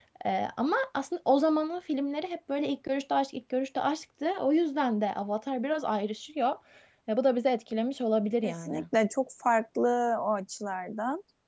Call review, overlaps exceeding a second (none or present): none